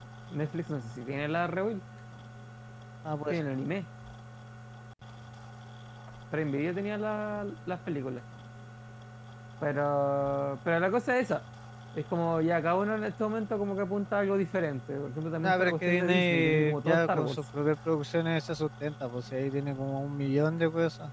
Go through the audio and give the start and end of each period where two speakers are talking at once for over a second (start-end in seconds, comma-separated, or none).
15.4-17.4